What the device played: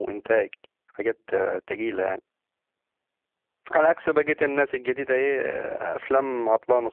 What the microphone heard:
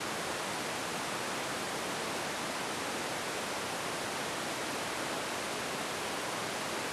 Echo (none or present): none